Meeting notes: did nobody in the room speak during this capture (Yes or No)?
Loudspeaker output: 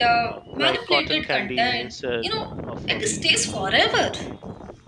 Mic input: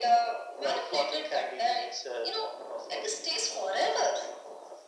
Yes